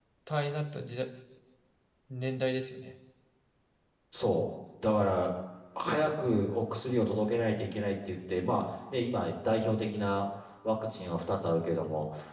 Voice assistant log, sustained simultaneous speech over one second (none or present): none